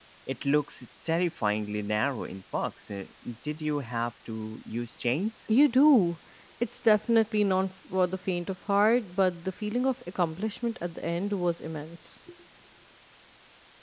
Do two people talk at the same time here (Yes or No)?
No